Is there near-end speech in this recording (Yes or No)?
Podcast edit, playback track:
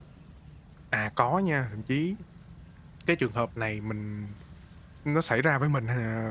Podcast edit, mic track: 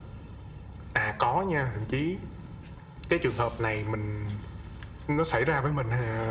No